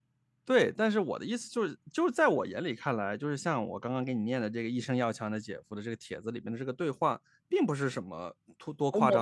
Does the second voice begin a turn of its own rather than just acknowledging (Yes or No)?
Yes